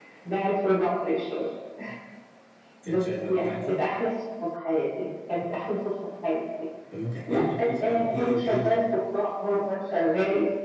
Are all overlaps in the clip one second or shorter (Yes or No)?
No